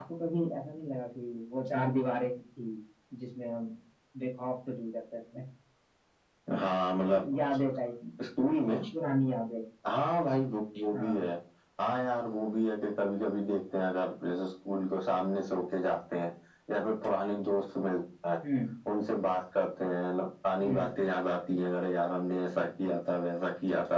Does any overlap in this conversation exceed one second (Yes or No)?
No